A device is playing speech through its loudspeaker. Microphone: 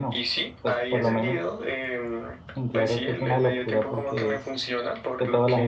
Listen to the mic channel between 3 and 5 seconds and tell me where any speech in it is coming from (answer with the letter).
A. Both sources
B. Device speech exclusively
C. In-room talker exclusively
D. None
A